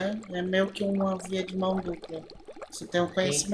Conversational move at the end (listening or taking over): listening